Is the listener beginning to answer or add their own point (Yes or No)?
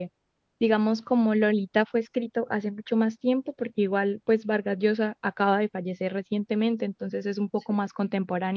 No